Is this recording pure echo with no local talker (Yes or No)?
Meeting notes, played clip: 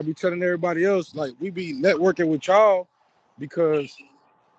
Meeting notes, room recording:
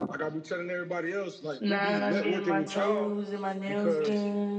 No